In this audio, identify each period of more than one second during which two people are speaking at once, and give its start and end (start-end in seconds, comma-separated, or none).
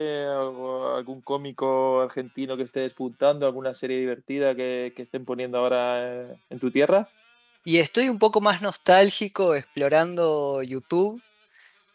none